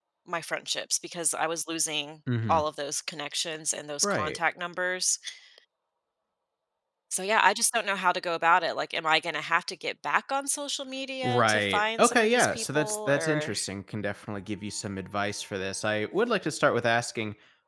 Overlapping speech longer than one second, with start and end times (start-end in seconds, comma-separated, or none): 11.2-13.5